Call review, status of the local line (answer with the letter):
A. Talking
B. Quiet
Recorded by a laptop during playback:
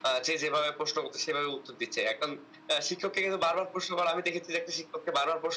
B